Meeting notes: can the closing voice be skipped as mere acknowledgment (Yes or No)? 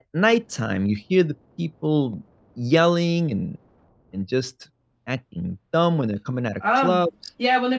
No